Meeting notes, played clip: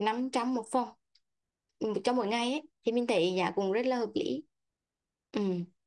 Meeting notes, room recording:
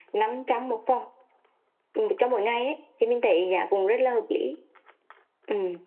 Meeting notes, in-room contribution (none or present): none